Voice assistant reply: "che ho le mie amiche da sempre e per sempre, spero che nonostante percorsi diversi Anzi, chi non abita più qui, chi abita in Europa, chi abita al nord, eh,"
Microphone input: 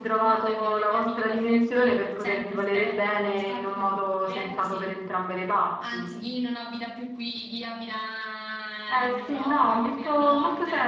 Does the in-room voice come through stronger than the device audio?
Yes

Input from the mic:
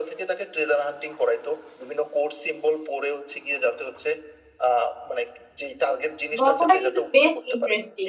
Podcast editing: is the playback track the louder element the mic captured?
No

